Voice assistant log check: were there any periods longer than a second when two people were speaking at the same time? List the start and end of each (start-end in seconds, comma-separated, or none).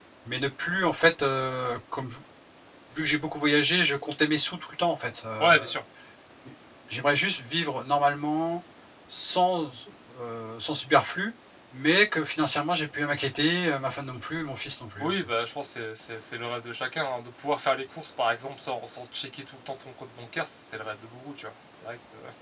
none